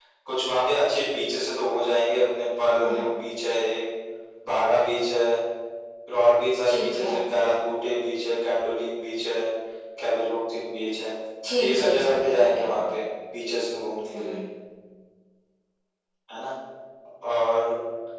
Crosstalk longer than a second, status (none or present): present